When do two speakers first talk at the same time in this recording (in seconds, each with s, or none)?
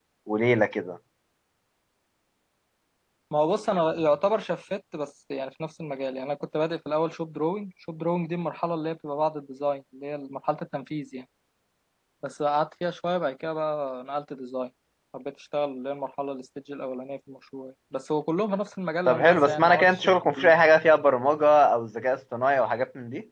19.1 s